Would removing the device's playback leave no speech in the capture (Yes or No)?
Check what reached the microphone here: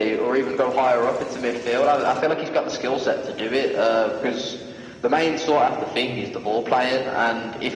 No